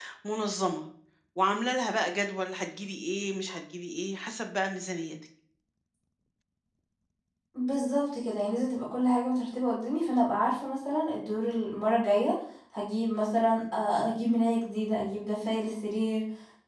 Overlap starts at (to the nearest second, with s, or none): none